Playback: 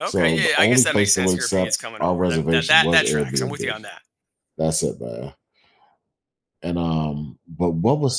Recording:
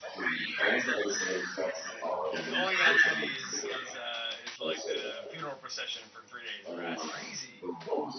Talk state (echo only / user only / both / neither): both